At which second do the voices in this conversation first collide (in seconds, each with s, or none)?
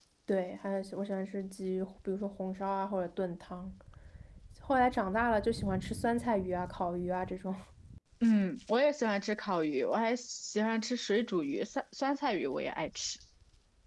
none